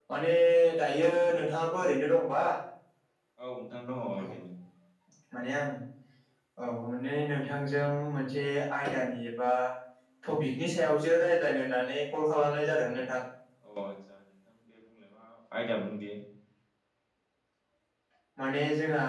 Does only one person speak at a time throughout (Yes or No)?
Yes